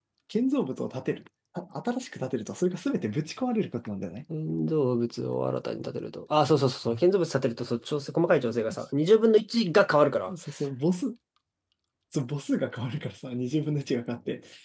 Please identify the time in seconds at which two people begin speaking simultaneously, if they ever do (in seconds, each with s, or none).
none